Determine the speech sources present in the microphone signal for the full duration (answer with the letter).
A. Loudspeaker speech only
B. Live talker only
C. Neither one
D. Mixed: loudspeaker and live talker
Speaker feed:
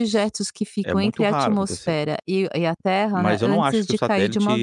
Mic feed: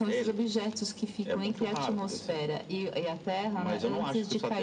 A